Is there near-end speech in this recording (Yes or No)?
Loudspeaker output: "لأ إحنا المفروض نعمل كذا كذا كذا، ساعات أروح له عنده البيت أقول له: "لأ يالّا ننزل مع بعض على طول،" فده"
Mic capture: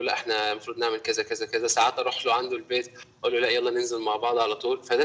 No